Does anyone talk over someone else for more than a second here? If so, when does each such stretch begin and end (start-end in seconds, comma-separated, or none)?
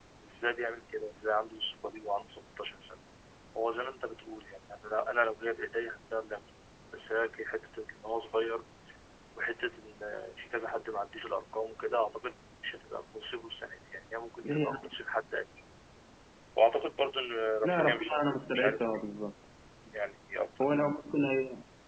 17.6-19.0